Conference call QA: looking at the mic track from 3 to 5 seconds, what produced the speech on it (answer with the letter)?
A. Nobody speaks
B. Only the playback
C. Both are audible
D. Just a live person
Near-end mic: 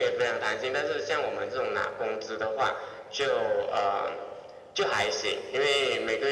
B